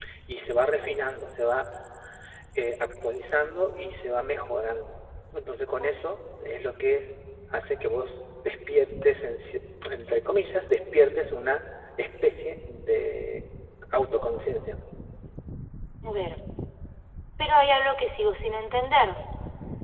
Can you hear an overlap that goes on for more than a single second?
No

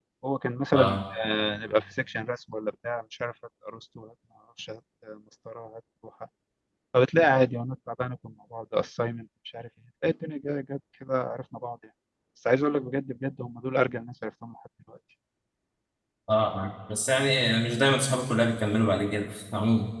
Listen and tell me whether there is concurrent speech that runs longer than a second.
No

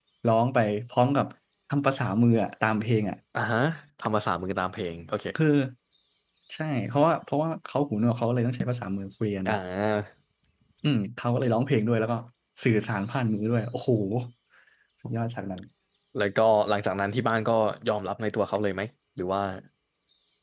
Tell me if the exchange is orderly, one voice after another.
Yes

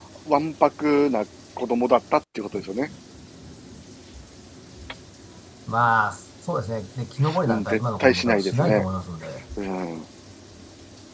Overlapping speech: Yes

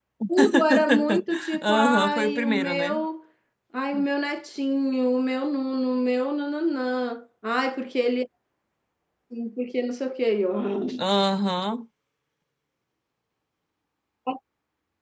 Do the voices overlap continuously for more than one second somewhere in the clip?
Yes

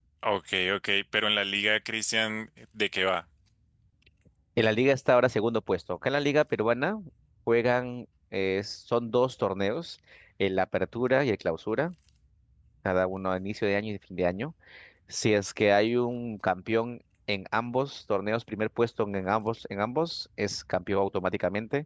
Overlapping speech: No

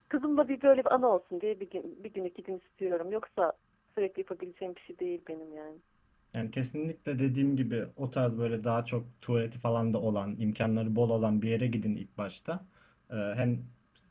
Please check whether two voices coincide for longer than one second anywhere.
No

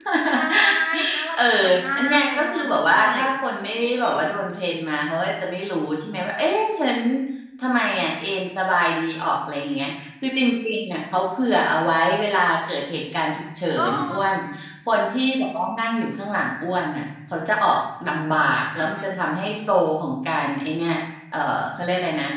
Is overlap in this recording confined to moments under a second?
No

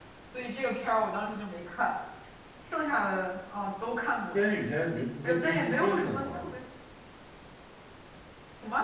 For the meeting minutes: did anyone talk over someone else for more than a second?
Yes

